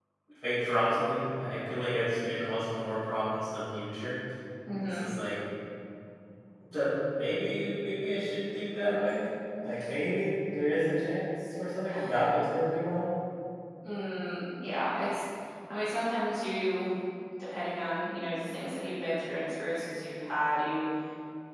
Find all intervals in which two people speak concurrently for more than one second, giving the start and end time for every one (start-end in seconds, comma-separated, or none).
none